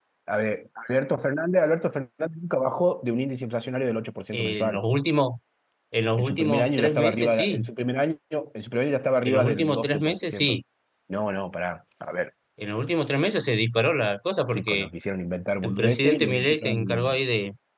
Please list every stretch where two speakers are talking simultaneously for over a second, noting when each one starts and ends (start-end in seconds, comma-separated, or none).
6.2-7.6, 9.2-10.6, 15.6-17.2